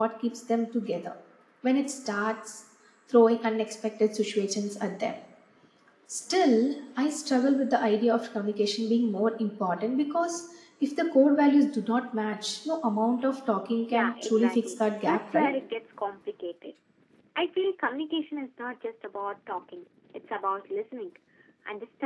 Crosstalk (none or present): present